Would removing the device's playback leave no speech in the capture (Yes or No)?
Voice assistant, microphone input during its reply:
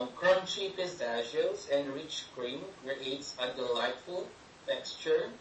Yes